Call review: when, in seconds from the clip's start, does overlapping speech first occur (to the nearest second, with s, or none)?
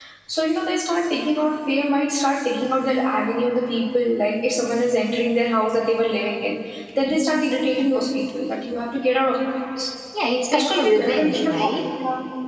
11 s